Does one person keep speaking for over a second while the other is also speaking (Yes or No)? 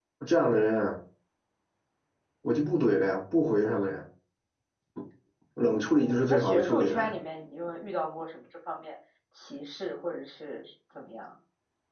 Yes